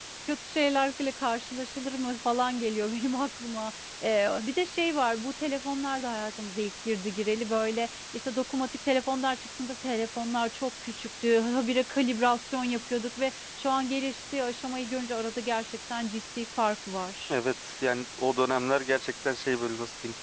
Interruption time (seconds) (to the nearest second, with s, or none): none